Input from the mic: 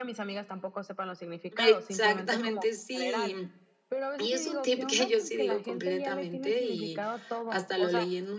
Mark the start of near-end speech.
1.6 s

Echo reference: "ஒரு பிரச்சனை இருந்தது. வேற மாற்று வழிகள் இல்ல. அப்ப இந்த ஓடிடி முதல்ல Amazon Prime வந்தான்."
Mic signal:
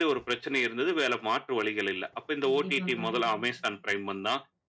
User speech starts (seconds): 2.5 s

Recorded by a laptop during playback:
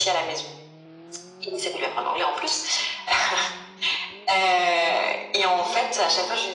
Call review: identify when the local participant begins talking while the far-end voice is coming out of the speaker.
none

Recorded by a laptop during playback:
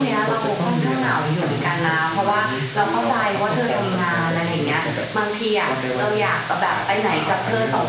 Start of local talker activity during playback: none

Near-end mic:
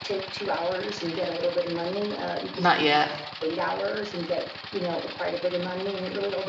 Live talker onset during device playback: 2.5 s

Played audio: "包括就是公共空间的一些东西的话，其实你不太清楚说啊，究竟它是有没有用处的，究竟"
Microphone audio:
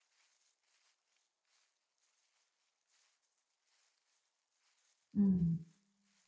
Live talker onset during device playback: 5.1 s

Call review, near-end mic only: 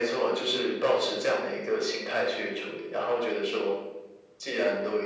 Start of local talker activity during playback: none

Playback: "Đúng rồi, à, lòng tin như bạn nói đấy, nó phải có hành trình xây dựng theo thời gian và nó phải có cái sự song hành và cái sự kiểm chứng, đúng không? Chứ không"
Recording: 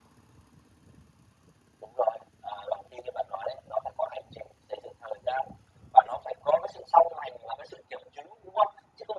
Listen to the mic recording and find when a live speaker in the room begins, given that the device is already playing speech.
none

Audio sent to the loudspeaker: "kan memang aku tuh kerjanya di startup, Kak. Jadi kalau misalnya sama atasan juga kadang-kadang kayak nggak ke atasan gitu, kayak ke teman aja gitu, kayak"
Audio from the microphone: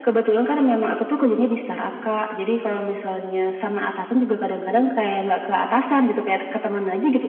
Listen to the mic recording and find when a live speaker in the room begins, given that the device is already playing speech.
none

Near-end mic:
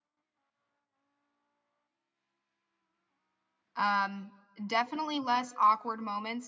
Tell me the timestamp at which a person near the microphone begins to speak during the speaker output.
3.8 s

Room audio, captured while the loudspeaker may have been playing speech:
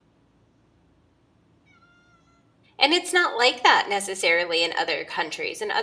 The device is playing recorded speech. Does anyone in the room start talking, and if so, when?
2.8 s

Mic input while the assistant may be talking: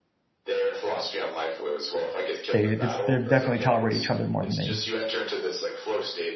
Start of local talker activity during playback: 2.5 s

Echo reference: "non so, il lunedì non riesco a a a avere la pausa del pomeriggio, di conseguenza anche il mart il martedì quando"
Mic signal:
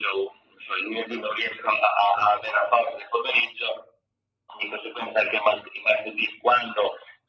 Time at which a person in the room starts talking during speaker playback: none

